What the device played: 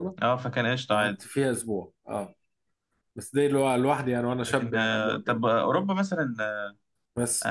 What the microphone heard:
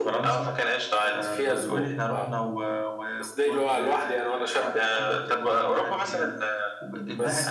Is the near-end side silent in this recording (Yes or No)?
No